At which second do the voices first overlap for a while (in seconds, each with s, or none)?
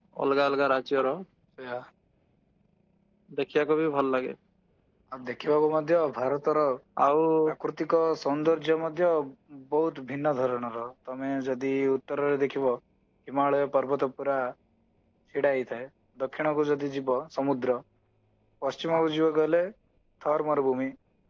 none